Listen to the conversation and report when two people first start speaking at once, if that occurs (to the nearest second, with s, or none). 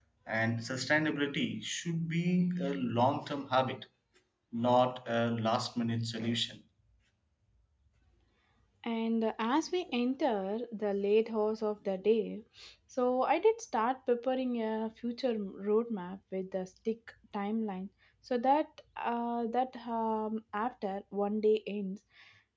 none